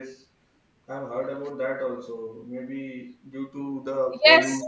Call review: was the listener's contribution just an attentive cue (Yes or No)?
Yes